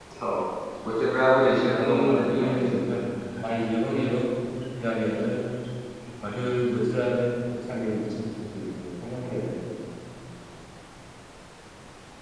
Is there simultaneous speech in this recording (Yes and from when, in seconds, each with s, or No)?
Yes, from 1.4 s